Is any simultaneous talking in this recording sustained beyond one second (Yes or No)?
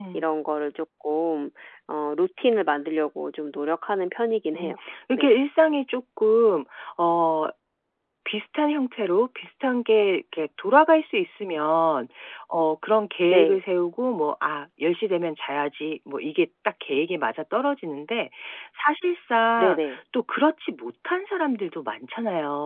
No